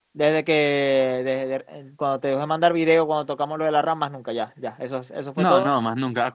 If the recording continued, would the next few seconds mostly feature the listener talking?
Yes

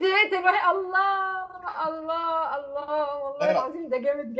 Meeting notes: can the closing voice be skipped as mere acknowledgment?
Yes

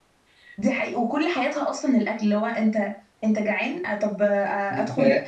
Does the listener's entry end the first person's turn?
No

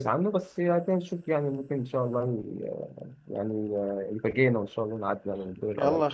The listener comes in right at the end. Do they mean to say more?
Yes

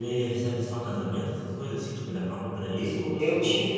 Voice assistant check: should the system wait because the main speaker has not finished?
No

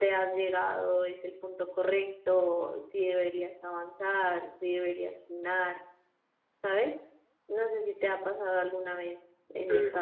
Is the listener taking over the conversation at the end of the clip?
No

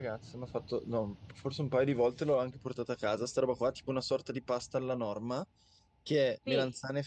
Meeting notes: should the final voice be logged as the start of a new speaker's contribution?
No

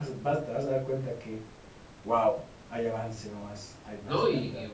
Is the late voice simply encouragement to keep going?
No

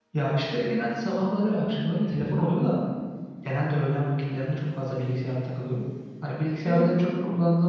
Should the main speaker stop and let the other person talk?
No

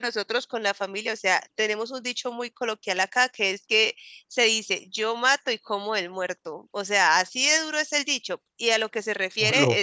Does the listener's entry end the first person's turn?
No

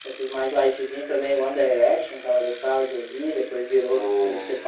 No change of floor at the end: Yes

